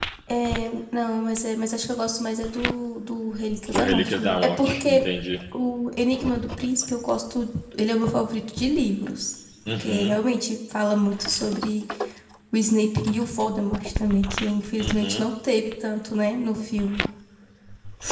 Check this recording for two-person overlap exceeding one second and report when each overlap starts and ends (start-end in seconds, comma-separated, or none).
3.7-5.1